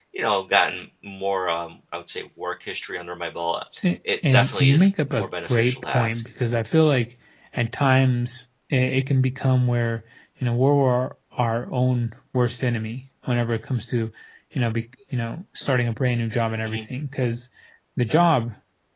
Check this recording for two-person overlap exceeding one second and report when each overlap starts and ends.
4.2-6.2

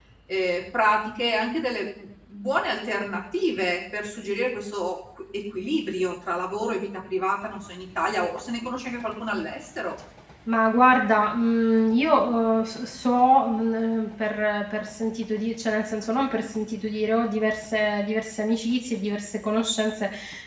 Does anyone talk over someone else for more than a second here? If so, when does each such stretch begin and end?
none

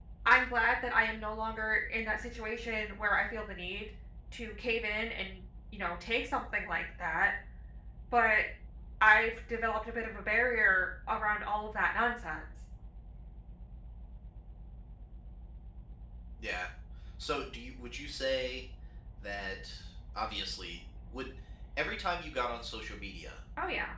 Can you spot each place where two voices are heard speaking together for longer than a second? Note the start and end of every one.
none

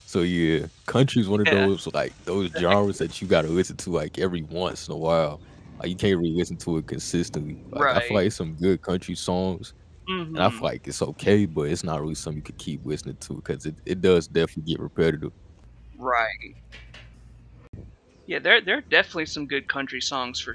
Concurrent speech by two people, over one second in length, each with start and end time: none

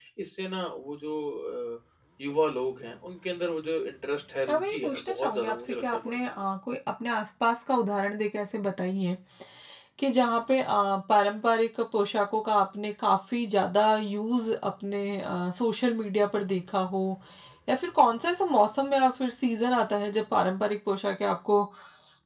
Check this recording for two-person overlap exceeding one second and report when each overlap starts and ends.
4.5-6.2

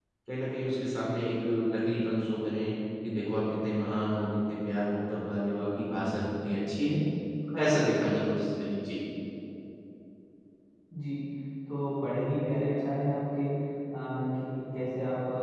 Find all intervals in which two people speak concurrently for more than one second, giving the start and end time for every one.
none

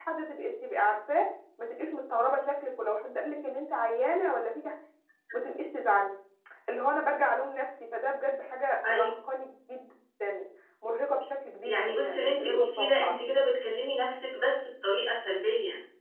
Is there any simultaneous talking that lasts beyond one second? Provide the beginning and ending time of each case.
11.6-13.2

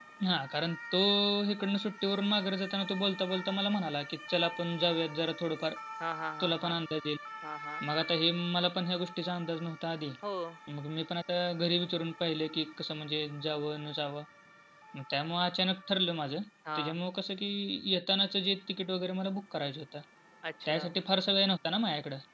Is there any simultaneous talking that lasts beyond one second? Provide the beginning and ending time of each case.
none

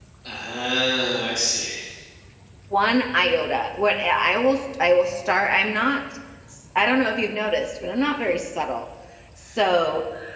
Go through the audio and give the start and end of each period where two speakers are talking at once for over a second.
none

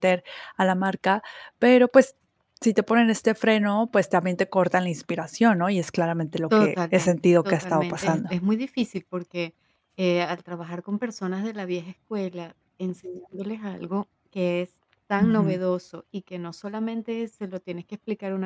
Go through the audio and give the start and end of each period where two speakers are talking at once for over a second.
6.5-8.3

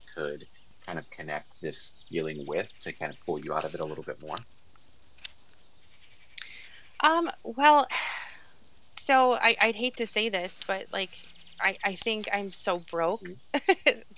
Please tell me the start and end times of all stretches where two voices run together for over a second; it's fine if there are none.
none

